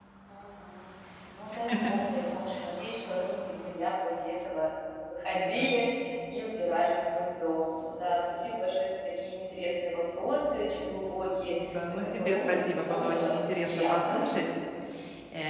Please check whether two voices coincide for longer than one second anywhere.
Yes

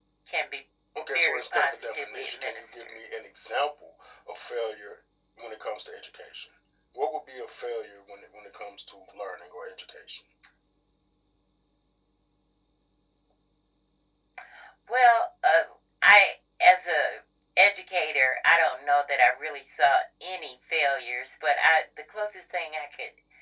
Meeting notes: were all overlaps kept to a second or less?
No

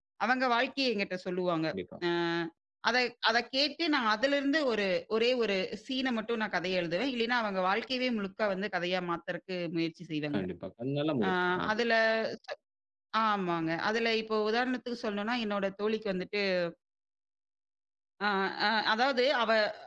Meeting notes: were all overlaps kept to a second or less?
Yes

